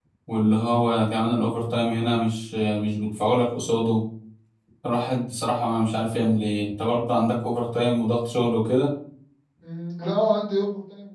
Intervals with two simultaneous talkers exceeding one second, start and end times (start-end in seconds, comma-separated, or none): none